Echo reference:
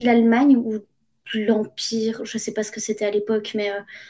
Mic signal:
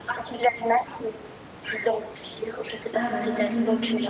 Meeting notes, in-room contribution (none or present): present